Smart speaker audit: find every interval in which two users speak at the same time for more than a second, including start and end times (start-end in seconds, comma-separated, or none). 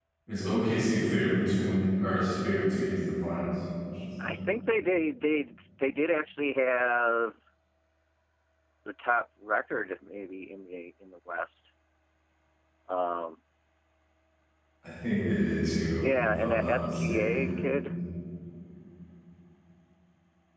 16.0-17.6